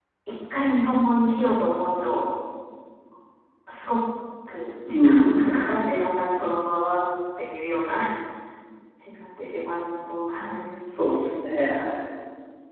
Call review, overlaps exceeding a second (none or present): none